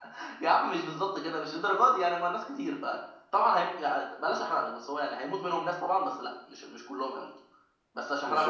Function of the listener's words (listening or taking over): taking over